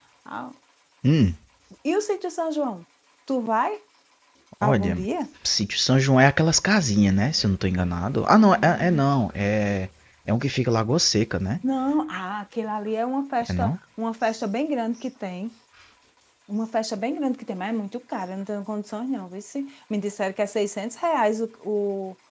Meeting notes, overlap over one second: none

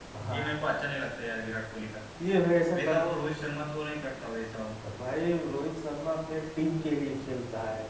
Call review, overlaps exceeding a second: none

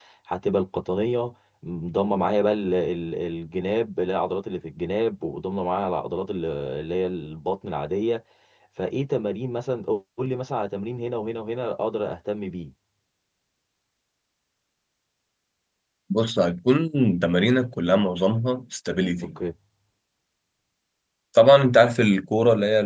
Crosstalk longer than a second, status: none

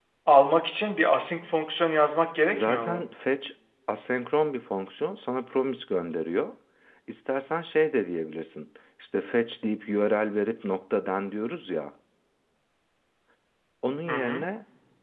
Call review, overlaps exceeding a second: none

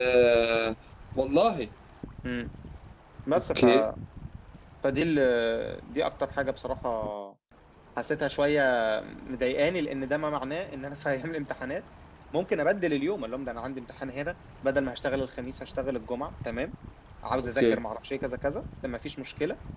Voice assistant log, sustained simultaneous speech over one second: none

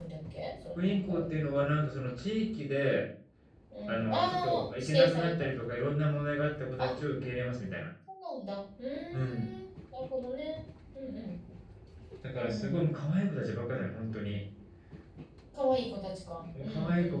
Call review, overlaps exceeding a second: present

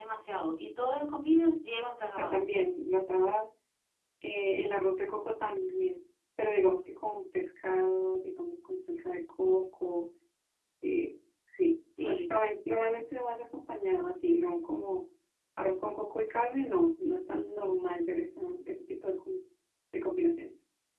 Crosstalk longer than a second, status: none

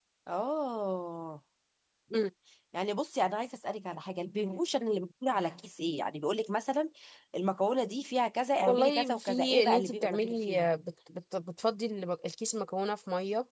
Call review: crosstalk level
present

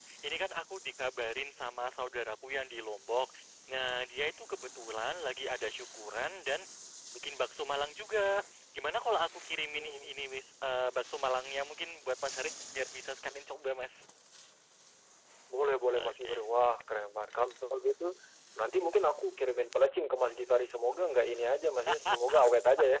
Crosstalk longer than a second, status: none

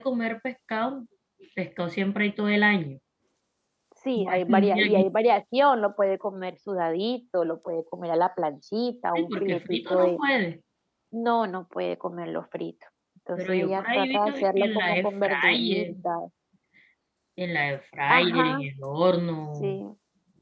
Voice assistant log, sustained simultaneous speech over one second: present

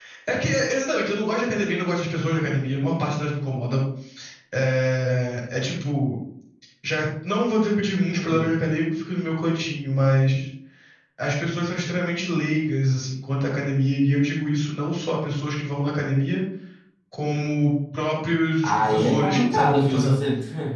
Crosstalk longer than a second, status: present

